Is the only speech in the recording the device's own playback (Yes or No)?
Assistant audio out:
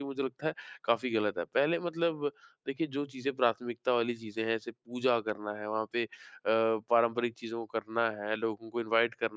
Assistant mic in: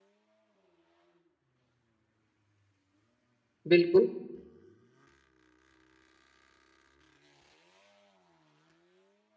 No